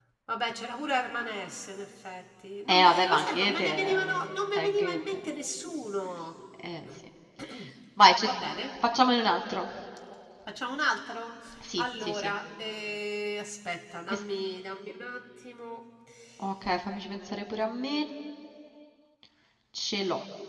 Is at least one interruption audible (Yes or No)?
Yes